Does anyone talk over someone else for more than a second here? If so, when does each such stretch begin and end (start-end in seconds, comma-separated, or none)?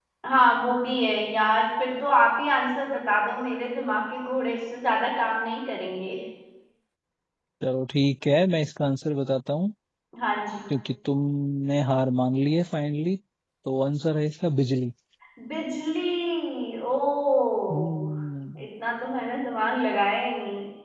none